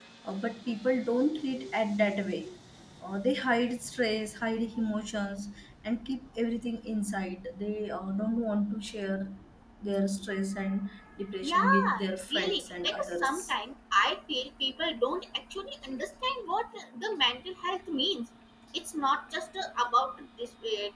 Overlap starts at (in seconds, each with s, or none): 11.4 s